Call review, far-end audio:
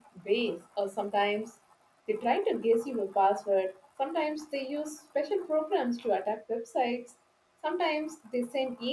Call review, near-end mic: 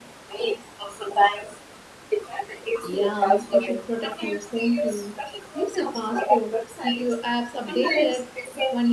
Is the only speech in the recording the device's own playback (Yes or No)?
No